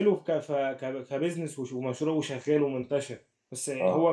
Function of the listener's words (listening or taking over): listening